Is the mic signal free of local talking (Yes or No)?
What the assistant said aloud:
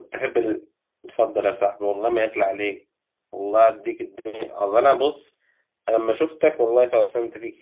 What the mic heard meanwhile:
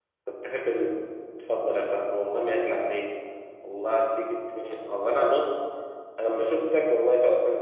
Yes